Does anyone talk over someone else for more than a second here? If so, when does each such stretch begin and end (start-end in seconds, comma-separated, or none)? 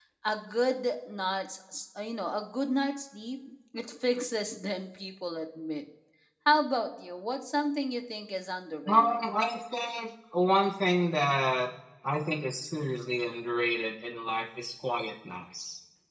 none